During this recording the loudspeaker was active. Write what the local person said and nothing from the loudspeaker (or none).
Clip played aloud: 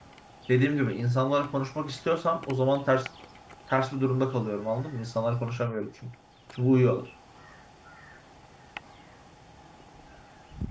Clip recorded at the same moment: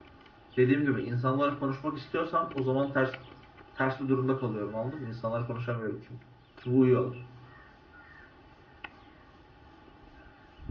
none